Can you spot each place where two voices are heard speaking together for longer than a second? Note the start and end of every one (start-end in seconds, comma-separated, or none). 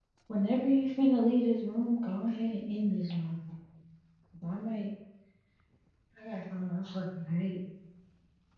none